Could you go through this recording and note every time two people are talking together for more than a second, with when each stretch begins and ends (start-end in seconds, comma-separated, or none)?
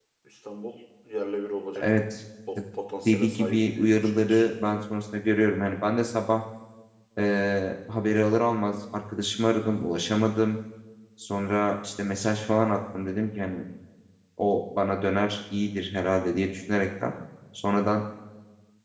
3.0-4.5